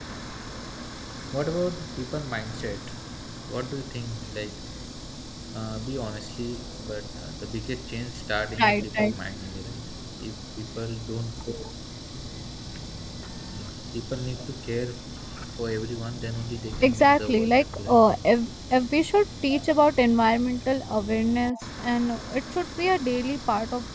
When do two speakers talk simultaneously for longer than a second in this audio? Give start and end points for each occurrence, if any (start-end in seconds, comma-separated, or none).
16.8-18.0